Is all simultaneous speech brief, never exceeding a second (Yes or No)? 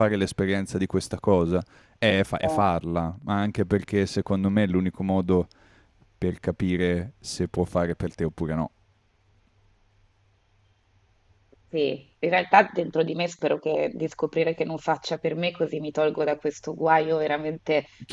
Yes